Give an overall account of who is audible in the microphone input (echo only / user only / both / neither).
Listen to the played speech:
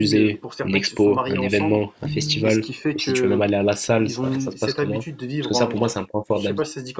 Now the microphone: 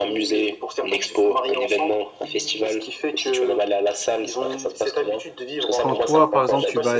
both